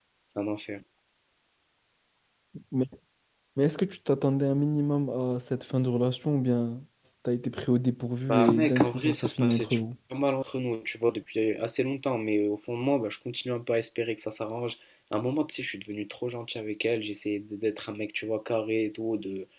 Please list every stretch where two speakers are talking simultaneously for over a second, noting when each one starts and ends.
8.3-9.8

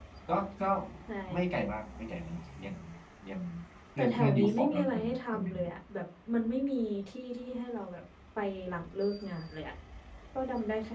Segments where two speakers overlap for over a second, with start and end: 4.0-5.5

